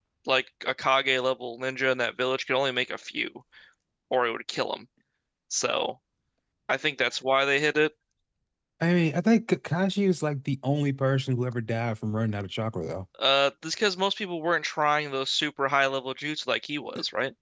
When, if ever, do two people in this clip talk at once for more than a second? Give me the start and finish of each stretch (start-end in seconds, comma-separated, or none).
none